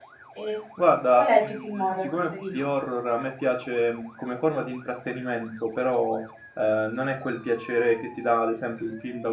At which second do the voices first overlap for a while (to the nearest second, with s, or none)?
1 s